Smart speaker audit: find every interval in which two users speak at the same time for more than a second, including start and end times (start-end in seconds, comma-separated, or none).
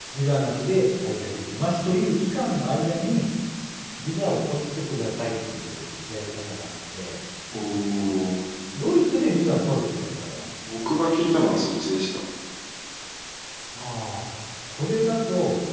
none